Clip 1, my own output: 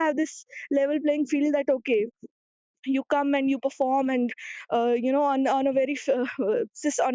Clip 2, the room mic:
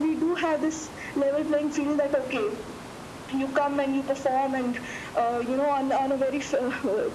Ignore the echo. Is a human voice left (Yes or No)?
No